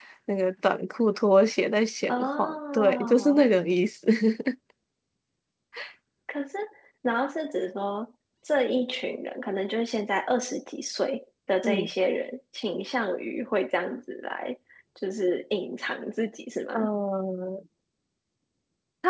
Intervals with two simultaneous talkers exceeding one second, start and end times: 2.1-3.4

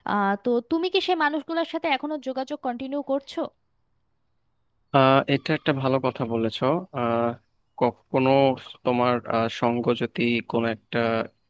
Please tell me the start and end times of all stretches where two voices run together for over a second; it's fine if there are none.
none

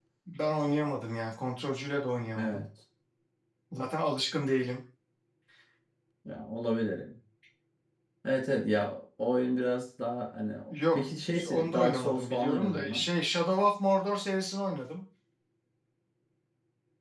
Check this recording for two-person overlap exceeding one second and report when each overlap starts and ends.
11.5-13.0

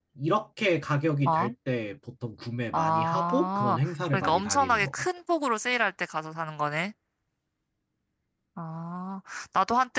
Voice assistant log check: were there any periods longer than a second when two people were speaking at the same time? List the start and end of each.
2.7-4.9

